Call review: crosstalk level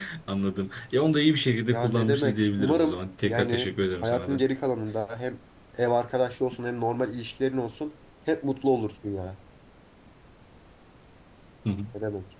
present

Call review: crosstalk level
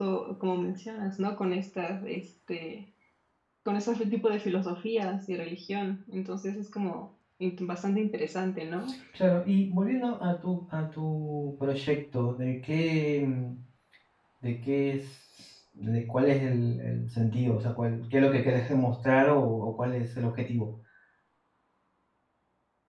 none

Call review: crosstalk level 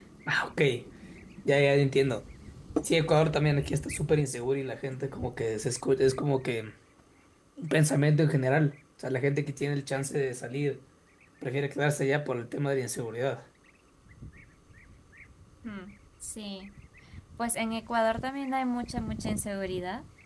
none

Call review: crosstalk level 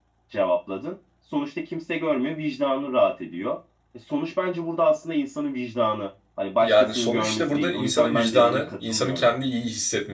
present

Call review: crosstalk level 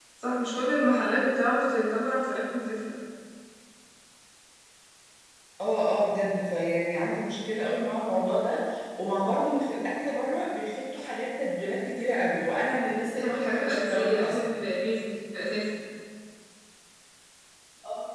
present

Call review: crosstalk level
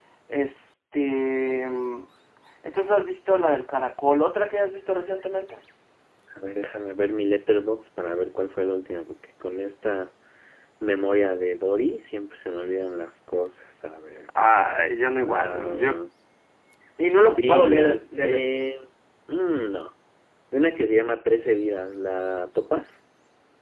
present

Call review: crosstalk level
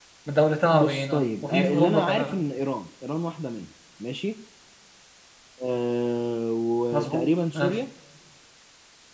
present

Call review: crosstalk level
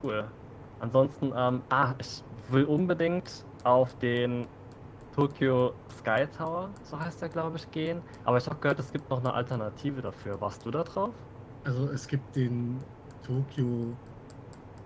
none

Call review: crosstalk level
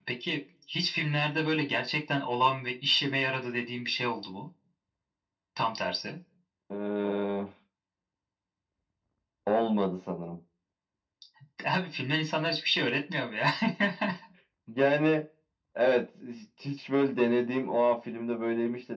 none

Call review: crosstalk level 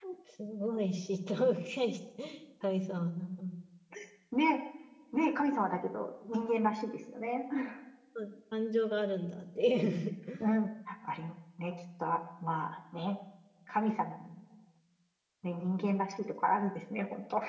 none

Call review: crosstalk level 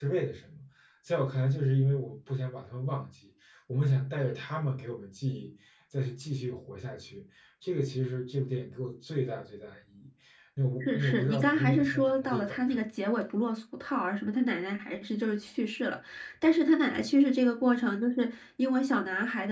present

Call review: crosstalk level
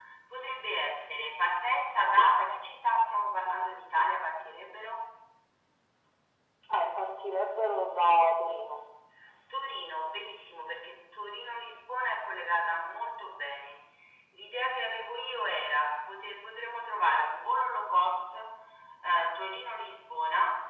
none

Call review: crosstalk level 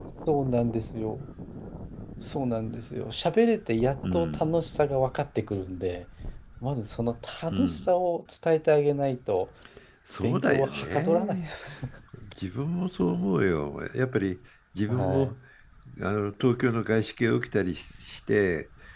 present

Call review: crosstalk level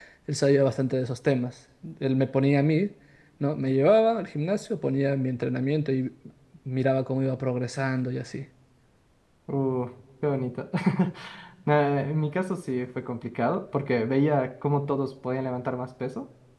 none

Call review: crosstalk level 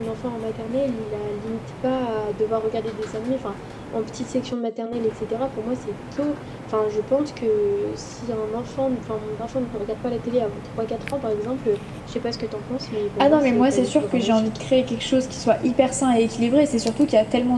present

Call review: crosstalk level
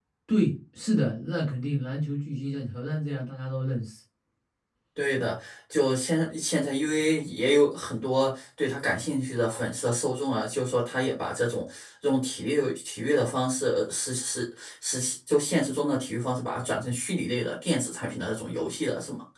none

